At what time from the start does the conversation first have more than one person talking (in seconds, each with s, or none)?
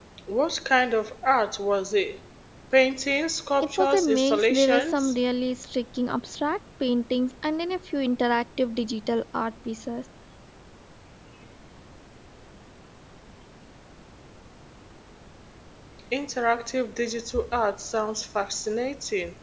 3.6 s